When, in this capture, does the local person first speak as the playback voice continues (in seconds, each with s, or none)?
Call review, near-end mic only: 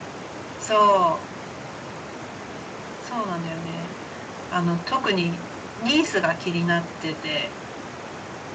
none